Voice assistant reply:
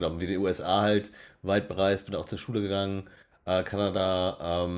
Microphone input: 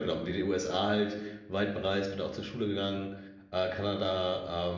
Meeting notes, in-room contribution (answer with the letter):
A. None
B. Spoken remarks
A